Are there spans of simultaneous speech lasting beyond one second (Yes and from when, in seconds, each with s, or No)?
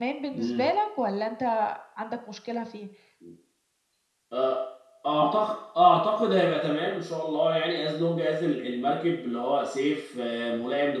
No